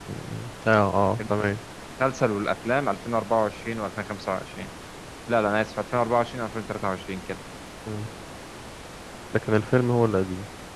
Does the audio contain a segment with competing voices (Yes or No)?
No